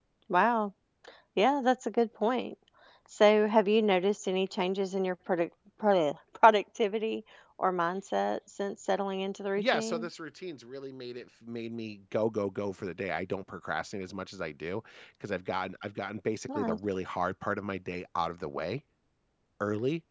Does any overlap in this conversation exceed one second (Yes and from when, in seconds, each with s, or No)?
No